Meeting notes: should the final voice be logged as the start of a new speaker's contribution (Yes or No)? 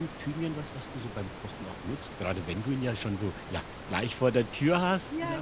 Yes